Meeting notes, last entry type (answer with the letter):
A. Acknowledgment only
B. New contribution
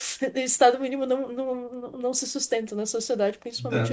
B